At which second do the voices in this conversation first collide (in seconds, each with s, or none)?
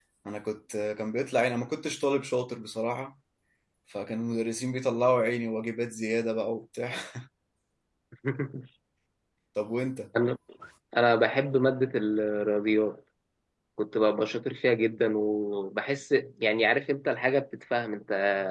none